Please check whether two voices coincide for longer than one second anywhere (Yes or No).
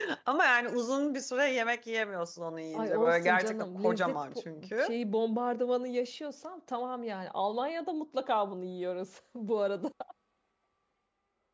Yes